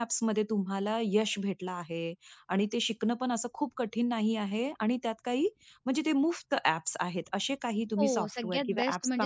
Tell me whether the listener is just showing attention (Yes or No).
No